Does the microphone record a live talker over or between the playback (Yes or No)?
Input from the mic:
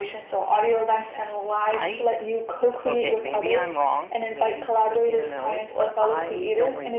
Yes